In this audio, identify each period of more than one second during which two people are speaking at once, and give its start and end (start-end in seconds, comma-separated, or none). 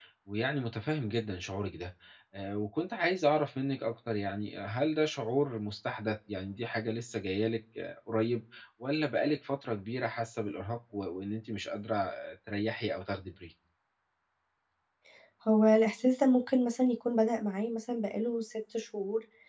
none